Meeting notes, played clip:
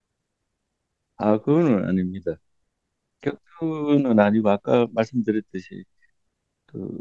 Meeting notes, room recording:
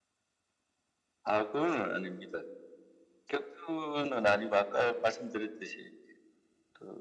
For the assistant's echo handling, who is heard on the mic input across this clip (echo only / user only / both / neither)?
echo only